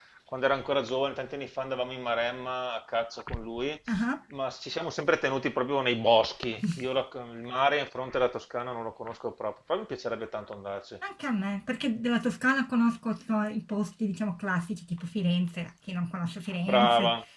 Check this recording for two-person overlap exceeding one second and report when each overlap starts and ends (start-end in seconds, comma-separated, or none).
none